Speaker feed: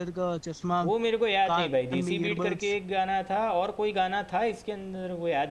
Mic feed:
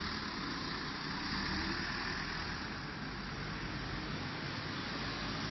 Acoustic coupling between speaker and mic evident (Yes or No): No